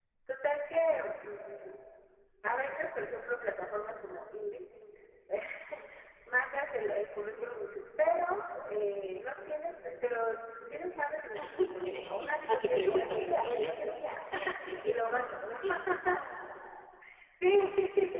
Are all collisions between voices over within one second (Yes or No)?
No